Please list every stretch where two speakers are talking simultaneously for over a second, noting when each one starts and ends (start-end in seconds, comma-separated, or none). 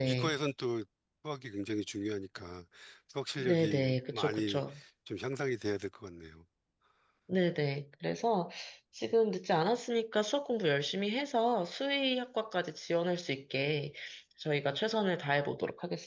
3.4-4.6